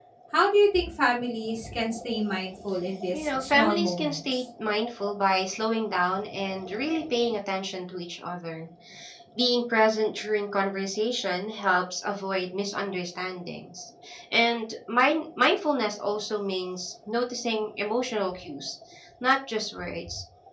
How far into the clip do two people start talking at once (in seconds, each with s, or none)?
3.1 s